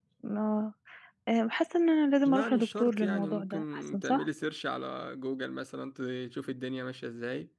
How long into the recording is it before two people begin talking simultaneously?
2.2 s

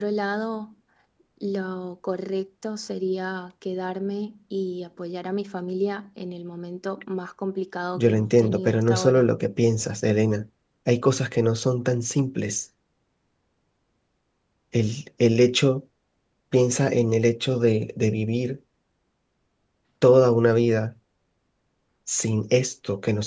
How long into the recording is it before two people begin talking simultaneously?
8.0 s

